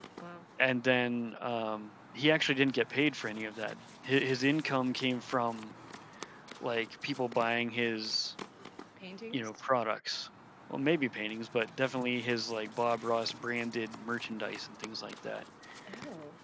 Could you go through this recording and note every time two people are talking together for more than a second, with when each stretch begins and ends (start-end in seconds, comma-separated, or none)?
none